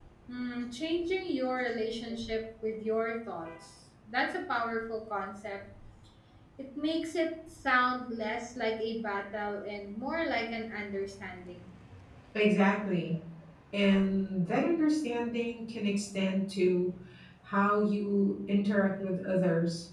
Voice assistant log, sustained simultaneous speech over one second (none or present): none